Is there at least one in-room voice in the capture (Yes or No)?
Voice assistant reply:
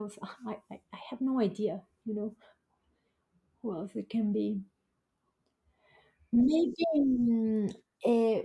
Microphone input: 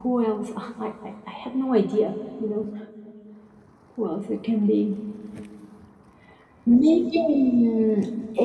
No